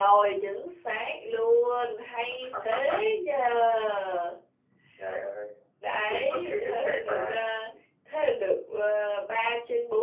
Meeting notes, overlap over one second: present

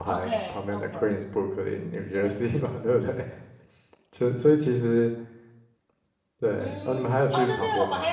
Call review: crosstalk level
present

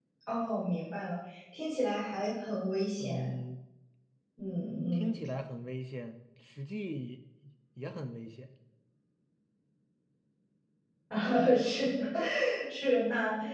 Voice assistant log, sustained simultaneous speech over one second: none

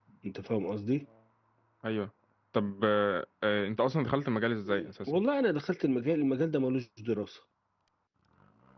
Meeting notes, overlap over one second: none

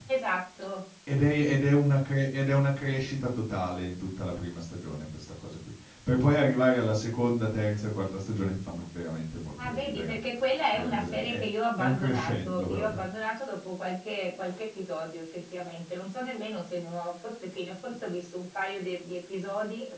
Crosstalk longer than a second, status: present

